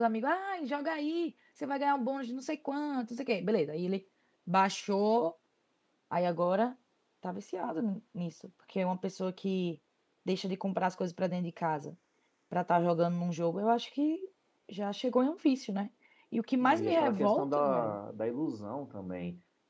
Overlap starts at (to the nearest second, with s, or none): 17 s